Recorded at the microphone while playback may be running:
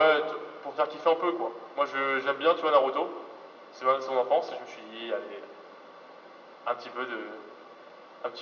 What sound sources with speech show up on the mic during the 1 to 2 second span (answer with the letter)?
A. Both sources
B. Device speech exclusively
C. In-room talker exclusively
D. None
B